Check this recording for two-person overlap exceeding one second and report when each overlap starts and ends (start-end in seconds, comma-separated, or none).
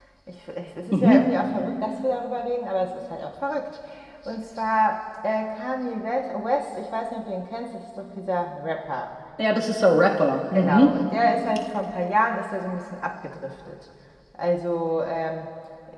none